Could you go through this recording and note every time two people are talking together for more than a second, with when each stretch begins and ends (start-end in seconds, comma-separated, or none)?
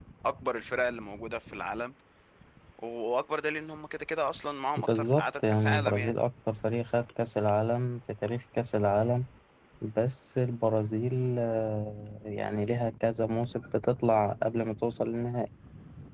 4.8-6.1